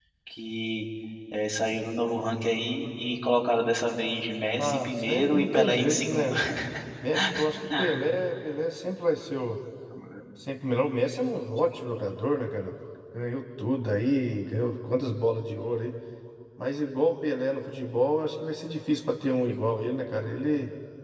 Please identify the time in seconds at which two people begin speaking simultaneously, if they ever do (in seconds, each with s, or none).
4.6 s